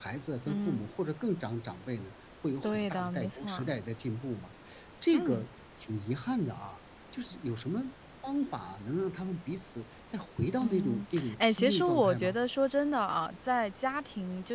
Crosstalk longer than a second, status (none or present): present